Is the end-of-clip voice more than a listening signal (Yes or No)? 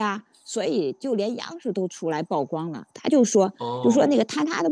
No